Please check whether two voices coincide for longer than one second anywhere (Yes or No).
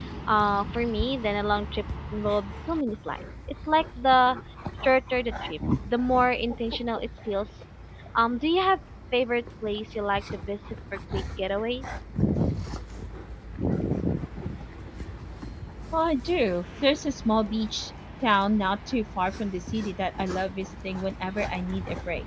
No